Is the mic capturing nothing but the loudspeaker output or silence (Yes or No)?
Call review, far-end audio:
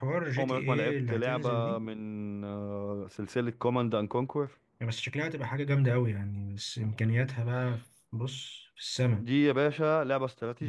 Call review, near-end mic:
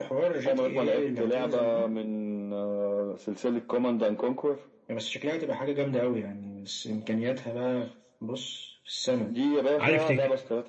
No